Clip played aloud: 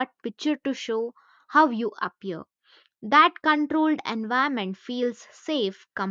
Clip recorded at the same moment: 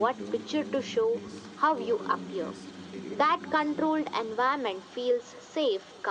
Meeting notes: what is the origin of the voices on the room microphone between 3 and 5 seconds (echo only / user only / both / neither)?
both